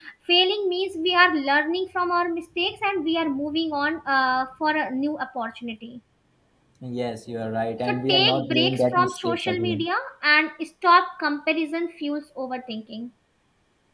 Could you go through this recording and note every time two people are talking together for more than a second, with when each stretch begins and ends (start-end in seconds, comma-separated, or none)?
7.9-9.8